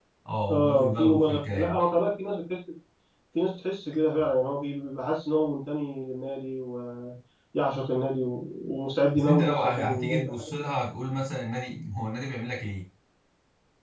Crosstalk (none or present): present